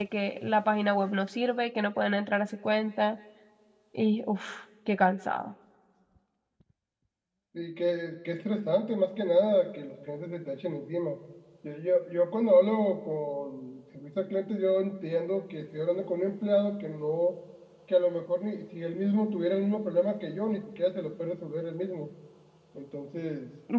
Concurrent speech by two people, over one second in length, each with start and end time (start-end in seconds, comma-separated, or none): none